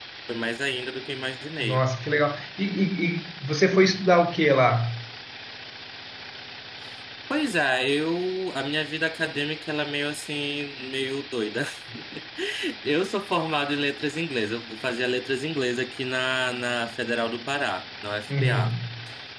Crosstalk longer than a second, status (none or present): none